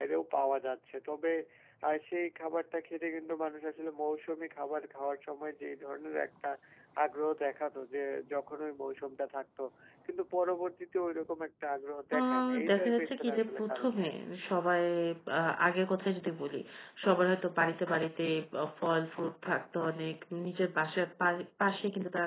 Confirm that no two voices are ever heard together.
No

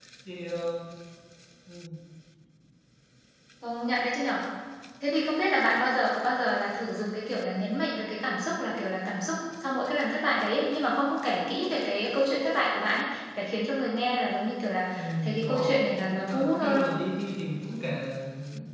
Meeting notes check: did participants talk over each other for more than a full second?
Yes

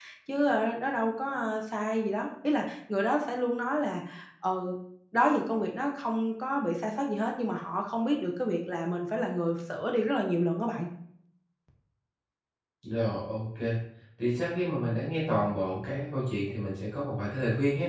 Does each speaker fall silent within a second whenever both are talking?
Yes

